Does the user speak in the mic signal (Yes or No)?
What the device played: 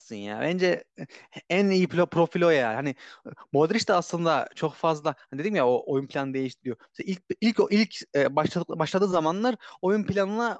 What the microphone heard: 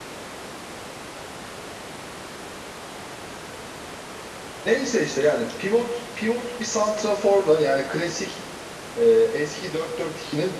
Yes